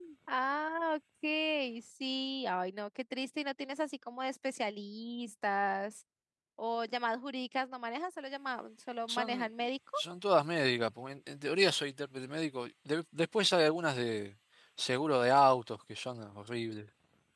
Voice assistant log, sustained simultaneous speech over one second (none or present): none